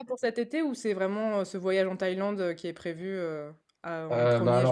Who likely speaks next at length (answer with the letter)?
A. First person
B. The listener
B